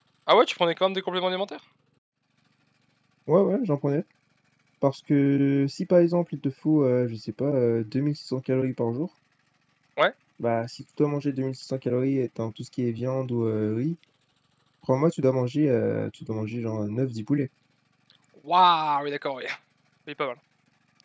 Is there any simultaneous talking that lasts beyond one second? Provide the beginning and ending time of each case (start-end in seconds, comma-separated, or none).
none